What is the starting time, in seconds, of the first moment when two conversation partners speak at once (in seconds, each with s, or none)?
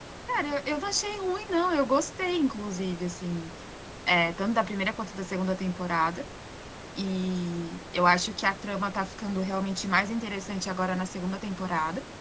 none